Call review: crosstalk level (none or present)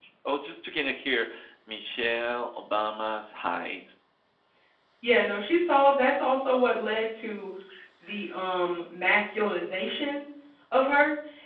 none